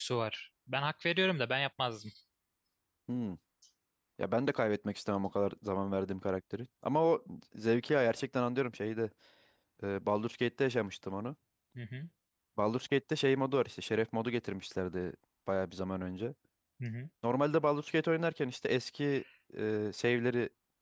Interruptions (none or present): none